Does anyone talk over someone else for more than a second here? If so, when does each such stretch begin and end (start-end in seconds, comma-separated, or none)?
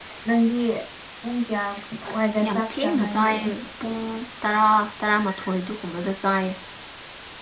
2.1-3.3